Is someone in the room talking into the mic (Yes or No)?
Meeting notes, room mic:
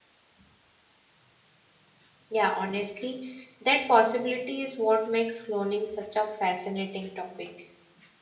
Yes